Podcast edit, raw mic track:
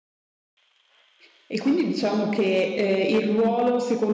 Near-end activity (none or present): present